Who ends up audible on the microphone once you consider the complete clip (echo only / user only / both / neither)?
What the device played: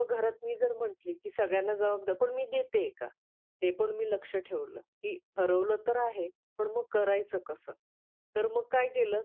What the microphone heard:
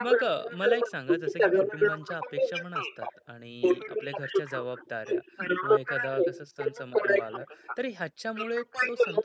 both